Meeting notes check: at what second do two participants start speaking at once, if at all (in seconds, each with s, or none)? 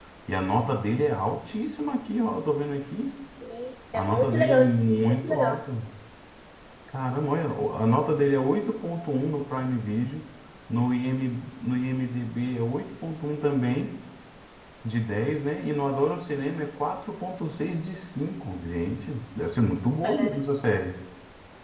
3.9 s